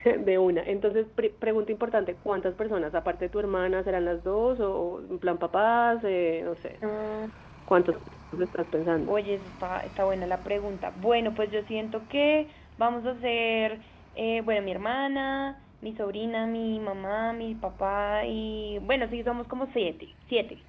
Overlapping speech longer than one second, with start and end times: none

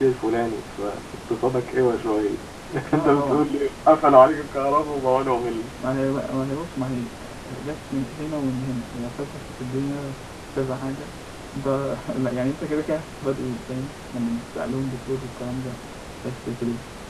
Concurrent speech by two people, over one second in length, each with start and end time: none

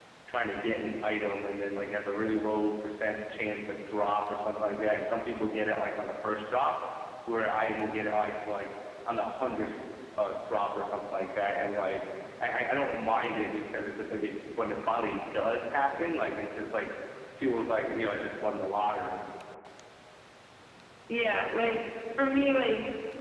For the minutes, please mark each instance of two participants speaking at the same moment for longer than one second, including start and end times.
none

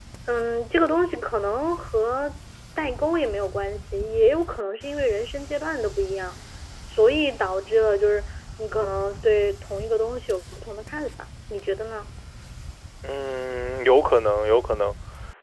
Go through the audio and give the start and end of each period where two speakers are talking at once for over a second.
none

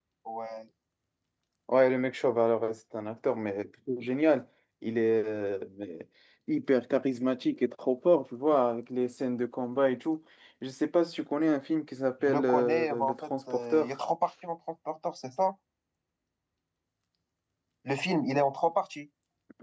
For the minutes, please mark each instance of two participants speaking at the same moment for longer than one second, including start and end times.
12.2-13.9

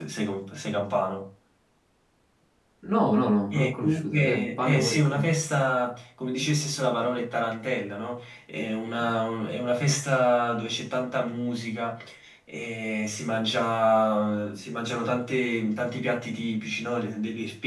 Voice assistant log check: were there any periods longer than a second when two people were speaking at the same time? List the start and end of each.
3.5-5.2

